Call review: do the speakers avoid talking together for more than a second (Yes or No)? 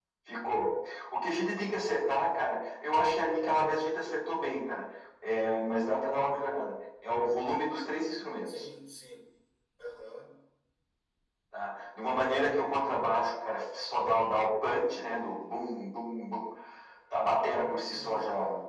Yes